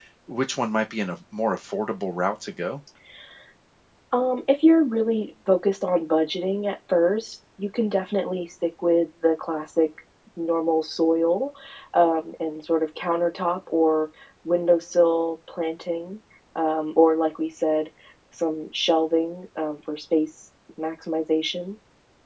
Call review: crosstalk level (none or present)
none